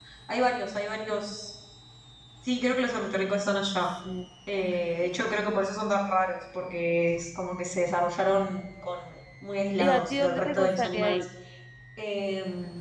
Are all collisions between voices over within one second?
No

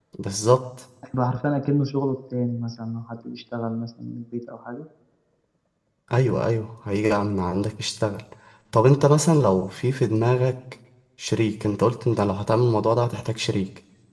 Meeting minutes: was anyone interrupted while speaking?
No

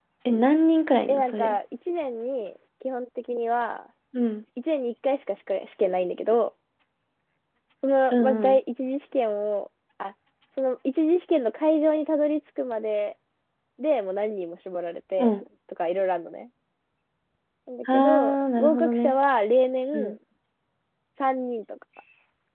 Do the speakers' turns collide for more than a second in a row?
Yes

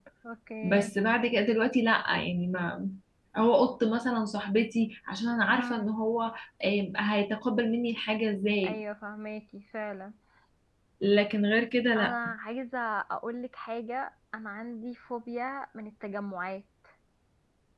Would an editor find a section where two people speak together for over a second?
No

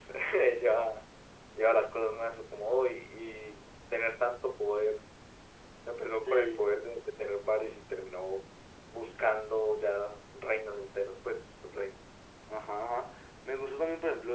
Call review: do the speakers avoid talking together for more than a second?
Yes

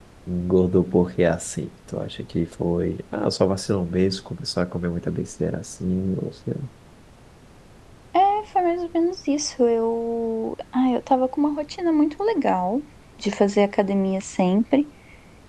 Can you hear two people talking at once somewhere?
No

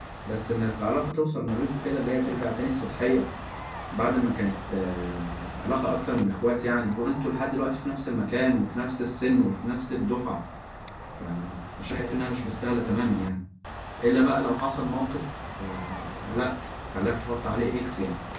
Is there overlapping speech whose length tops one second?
No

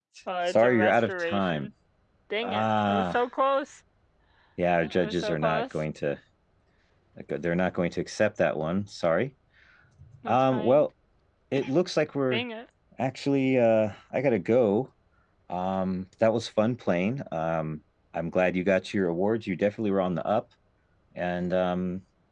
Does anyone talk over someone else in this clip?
Yes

